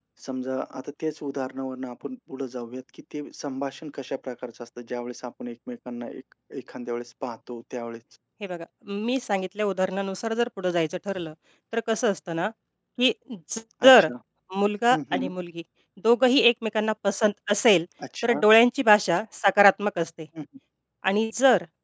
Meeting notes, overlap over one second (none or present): none